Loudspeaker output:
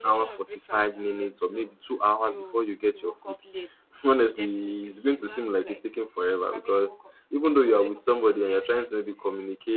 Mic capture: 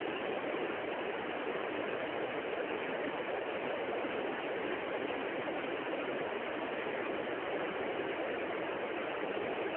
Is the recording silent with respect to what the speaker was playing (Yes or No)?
Yes